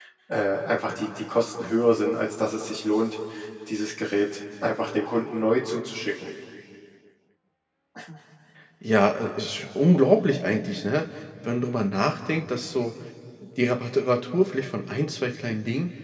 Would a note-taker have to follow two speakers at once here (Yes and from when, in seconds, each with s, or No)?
No